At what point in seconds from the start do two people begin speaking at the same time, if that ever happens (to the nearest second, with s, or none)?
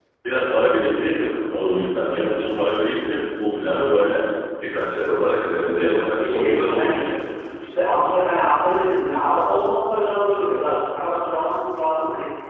6 s